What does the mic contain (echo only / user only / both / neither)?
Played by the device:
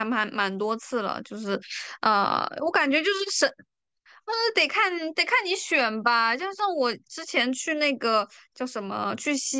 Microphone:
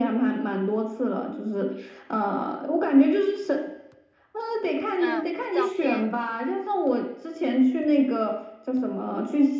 both